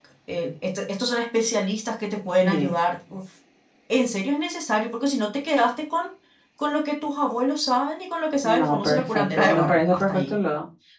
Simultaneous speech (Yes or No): Yes